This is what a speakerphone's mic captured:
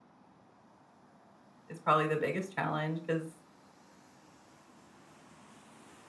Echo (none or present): none